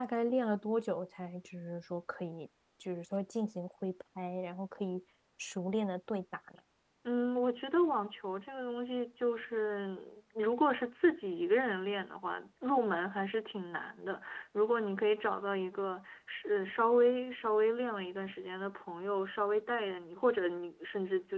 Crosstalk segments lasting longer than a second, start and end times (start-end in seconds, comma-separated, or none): none